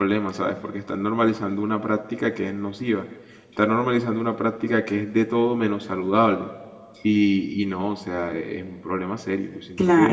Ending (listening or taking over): taking over